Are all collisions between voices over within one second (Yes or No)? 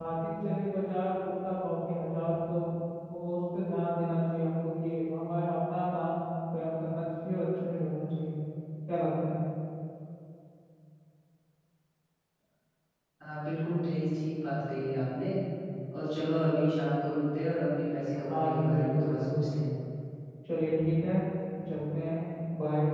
No